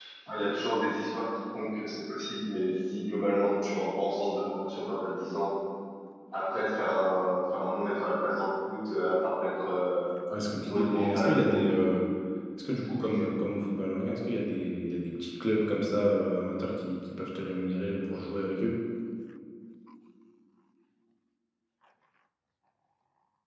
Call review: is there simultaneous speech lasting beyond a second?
Yes, from 10.6 s

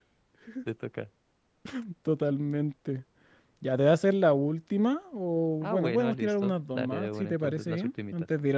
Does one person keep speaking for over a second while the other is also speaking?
Yes, from 5.6 s

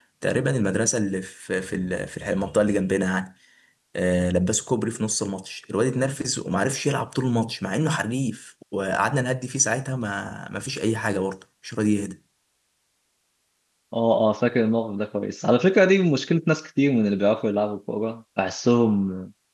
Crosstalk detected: No

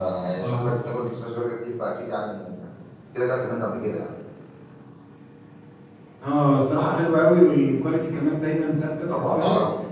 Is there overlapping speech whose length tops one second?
No

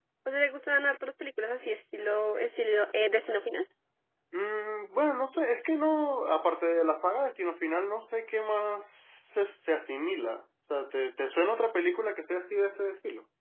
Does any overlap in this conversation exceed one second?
No

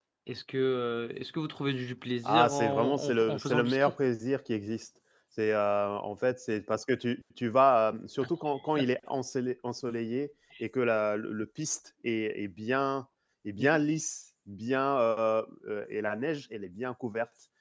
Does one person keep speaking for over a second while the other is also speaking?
Yes, from 2.2 s

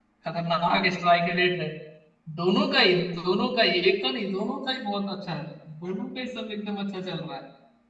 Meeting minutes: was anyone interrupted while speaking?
No

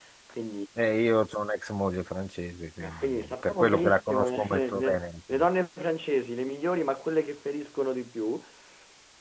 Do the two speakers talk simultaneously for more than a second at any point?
Yes, from 2.8 s

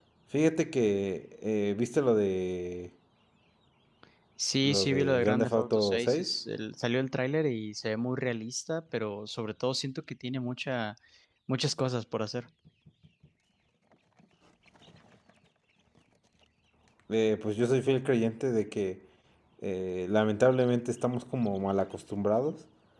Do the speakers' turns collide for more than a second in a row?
Yes, from 4.6 s

